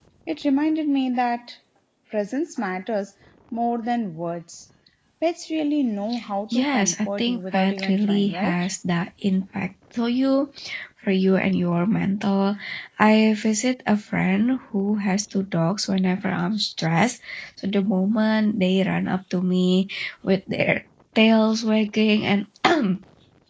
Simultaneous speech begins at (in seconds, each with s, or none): 6.5 s